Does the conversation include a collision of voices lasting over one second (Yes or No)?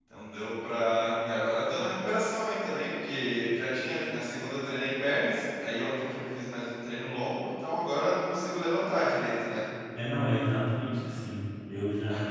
No